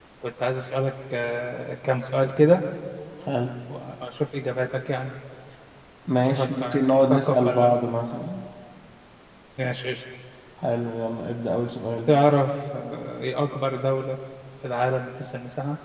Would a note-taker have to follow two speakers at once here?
Yes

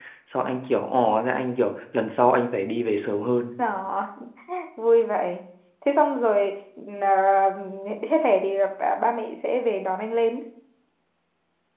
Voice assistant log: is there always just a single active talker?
Yes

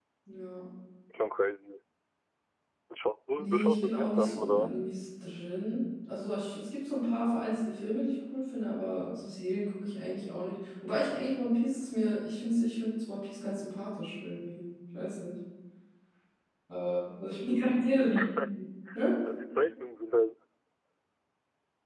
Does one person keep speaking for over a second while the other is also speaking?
Yes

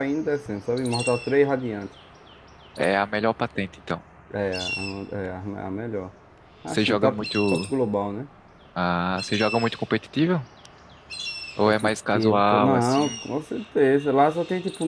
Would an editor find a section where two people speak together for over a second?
Yes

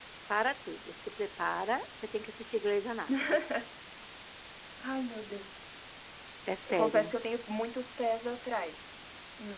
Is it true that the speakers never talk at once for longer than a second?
Yes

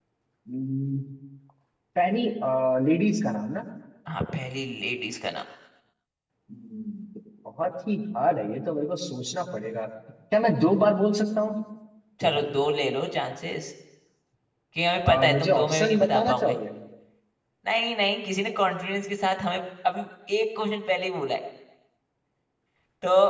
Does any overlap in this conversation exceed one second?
Yes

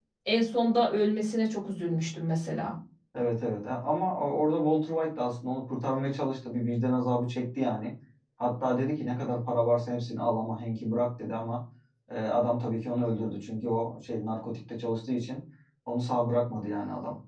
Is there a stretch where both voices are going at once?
No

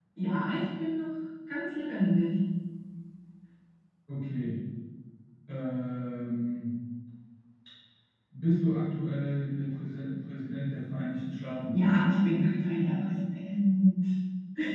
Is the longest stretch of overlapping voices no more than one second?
Yes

